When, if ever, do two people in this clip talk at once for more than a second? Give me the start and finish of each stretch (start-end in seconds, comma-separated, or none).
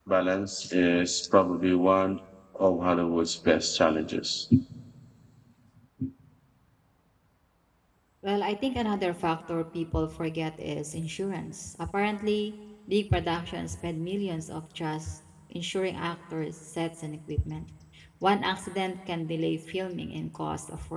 none